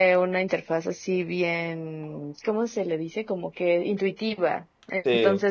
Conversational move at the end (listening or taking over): listening